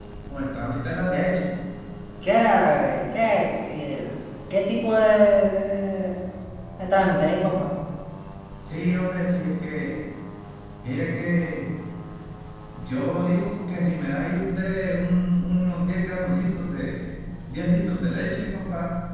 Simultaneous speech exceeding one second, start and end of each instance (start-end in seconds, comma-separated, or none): none